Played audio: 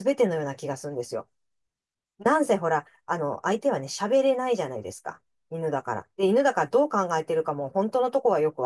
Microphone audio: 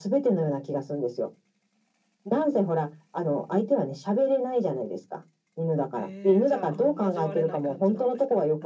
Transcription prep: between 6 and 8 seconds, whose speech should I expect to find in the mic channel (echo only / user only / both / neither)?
both